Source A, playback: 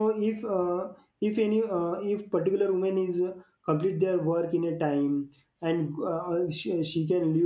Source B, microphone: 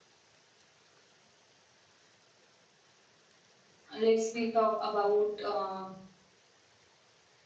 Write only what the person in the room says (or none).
let's we talk about. Uh,